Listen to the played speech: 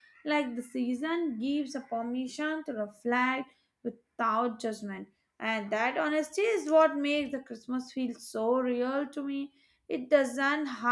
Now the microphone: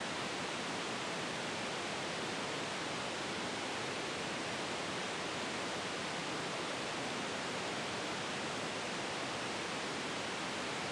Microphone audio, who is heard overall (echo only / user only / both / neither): neither